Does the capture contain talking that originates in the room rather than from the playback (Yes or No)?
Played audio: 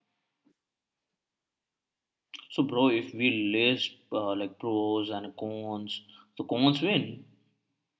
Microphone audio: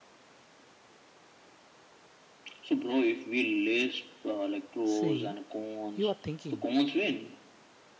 Yes